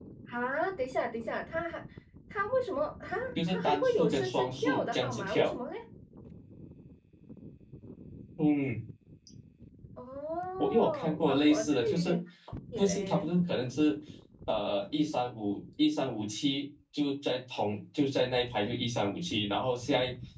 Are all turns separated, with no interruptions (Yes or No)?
No